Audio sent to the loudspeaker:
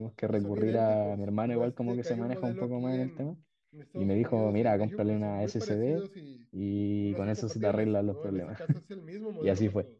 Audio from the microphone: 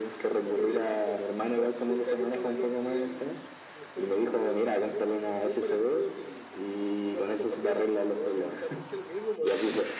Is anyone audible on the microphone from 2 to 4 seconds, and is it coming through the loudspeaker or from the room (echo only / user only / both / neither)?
echo only